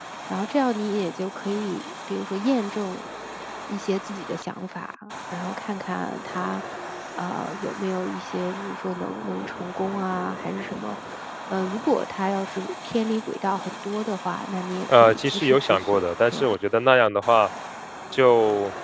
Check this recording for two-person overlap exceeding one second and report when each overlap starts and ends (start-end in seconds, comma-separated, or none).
14.9-16.6